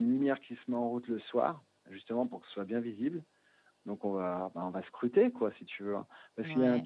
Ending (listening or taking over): taking over